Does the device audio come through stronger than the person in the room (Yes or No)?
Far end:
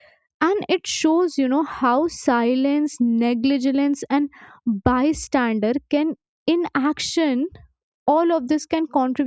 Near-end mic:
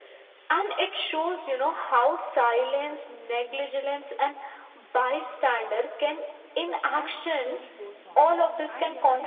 Yes